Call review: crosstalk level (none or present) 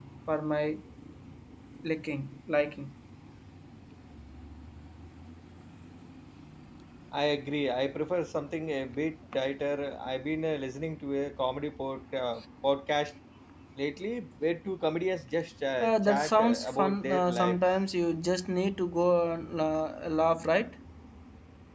present